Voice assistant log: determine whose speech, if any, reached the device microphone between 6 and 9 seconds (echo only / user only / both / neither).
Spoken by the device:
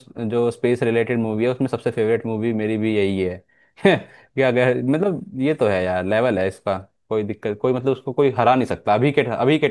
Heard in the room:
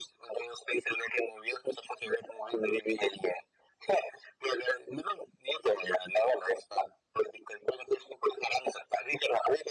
echo only